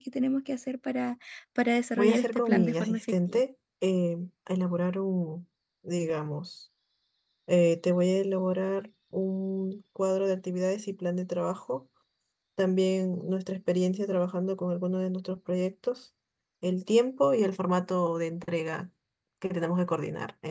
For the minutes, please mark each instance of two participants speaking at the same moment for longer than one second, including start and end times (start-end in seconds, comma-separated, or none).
2.0-3.4